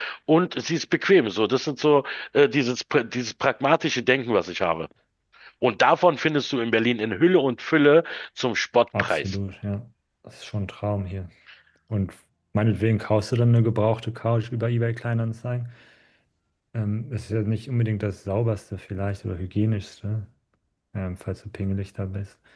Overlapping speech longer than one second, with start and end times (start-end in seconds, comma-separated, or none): none